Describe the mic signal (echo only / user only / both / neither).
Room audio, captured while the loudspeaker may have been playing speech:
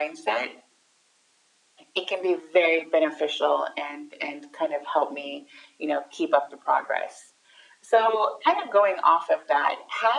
echo only